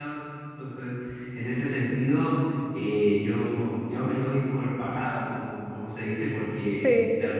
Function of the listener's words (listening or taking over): listening